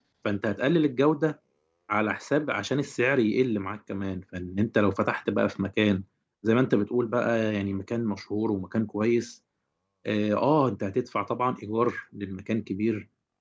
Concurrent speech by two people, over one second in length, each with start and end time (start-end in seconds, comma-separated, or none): none